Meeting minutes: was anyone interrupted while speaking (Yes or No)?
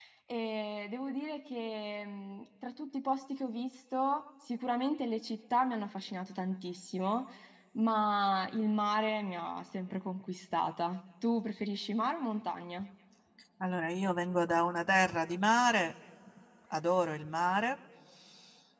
No